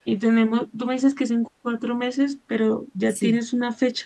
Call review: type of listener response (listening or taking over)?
listening